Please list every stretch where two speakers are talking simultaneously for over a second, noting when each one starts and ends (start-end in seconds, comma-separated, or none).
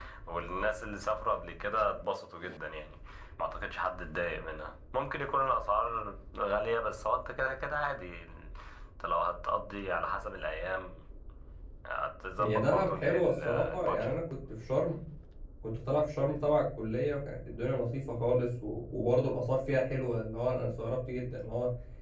12.4-14.1